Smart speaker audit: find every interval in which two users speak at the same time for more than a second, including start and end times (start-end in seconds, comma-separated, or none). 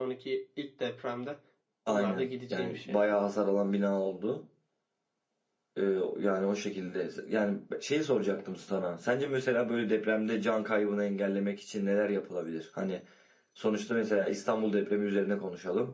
1.9-3.1